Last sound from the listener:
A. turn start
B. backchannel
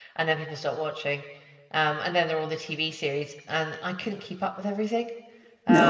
A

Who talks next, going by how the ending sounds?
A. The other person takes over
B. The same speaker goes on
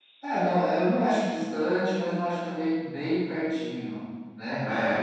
B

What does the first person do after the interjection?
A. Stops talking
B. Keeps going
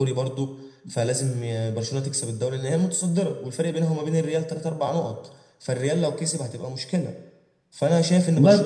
B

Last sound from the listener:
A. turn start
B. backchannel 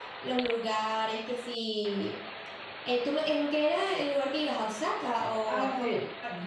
A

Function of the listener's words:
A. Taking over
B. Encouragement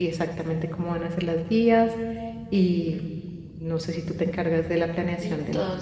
A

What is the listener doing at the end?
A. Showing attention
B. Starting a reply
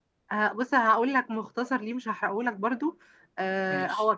A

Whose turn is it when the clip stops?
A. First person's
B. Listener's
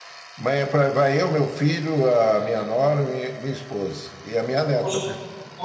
B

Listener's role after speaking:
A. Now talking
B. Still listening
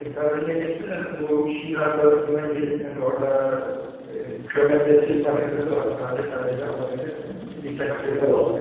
A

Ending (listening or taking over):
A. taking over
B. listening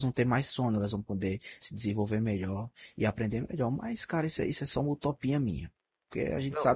A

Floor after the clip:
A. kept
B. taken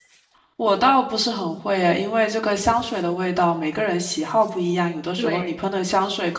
A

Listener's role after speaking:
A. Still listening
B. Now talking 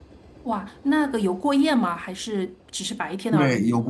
B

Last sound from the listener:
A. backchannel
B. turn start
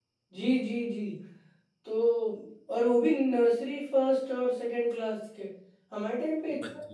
A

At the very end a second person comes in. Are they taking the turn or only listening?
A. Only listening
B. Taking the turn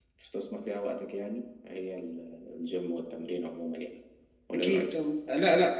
B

